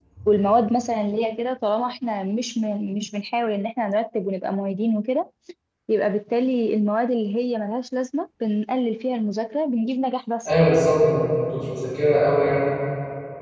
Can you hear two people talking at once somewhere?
No

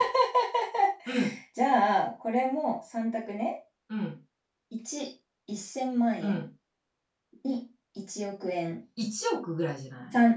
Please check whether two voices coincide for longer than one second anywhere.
No

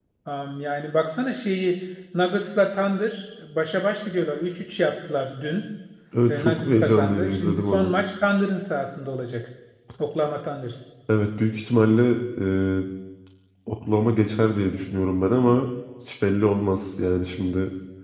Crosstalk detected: Yes, from 6.3 s

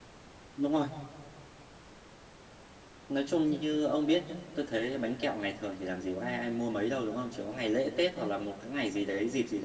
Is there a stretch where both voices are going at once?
No

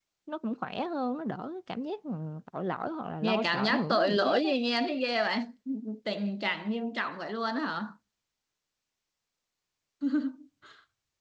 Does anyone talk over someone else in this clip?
Yes, from 3.2 s

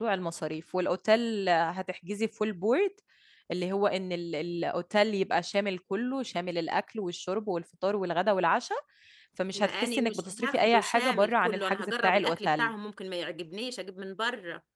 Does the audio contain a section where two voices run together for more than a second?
Yes, from 9.5 s

